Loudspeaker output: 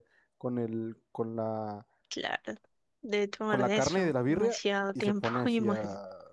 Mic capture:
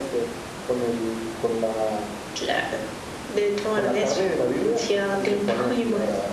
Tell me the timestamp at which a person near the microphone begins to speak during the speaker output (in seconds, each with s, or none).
none